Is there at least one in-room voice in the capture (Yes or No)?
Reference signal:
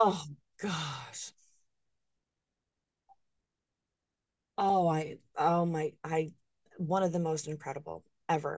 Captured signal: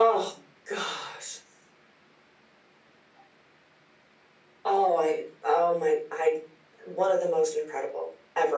No